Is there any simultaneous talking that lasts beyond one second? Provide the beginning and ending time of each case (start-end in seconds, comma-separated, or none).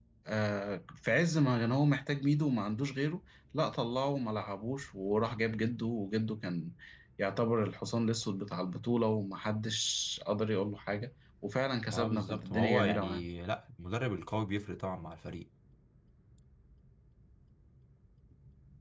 11.9-13.3